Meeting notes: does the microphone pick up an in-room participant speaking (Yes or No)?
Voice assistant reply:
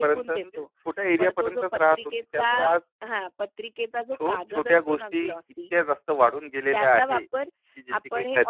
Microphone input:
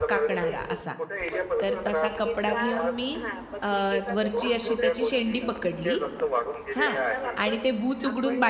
Yes